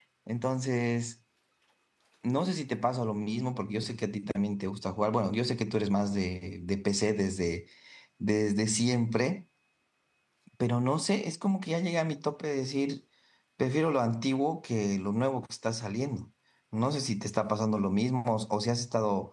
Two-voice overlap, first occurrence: none

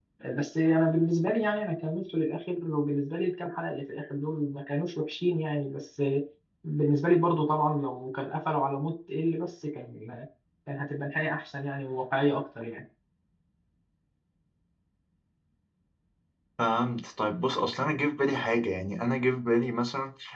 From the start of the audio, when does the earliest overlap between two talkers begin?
none

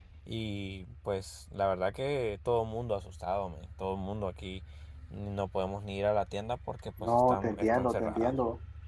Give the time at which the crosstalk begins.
7.0 s

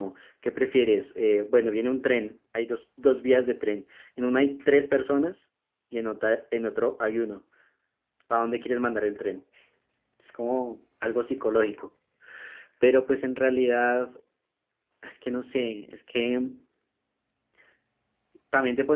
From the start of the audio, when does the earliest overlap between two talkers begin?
none

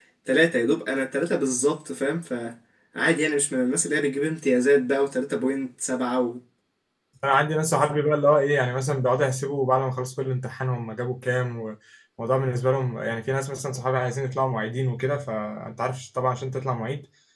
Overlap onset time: none

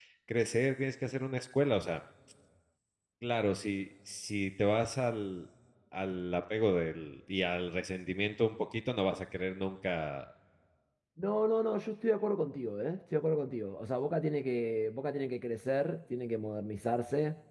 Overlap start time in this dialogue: none

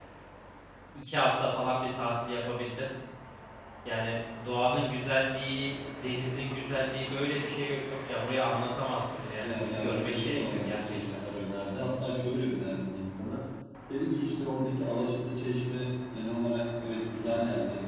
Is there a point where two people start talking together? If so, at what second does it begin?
9.4 s

